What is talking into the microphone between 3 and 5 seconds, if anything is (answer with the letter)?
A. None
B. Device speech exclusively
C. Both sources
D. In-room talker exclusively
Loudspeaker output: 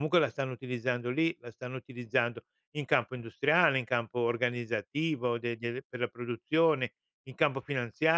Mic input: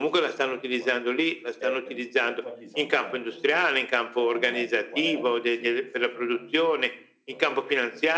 C